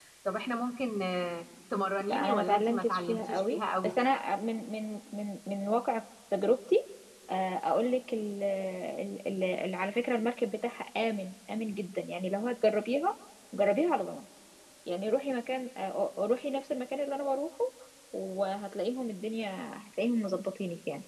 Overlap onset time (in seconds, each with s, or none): 2.1 s